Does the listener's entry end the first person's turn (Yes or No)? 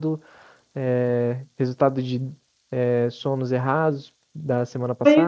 Yes